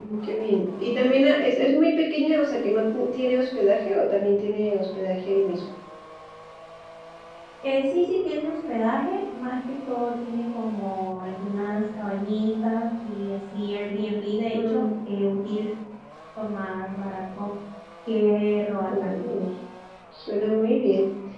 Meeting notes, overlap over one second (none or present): none